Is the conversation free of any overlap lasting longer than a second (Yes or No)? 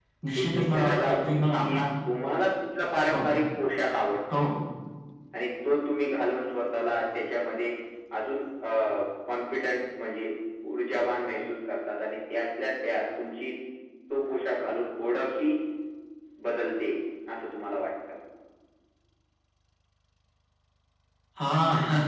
No